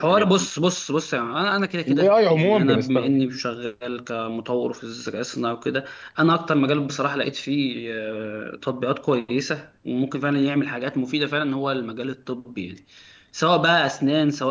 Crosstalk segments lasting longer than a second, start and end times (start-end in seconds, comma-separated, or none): 1.9-3.2